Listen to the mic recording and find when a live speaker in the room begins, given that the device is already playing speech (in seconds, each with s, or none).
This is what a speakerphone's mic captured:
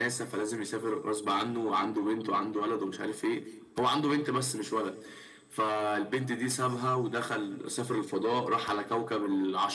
none